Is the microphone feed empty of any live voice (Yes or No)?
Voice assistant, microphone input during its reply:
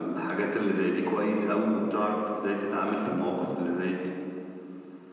Yes